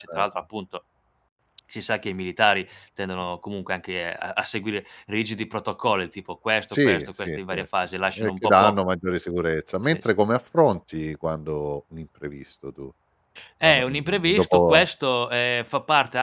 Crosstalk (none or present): present